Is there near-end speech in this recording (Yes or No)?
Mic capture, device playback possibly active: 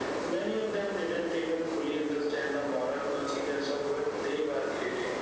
No